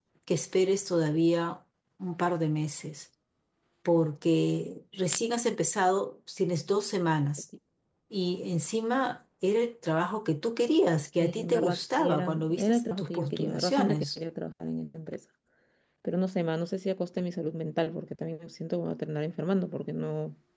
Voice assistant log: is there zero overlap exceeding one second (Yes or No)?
No